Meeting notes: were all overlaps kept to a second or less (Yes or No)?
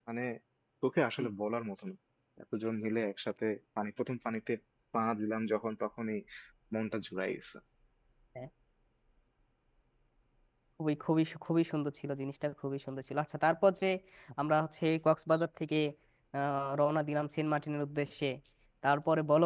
Yes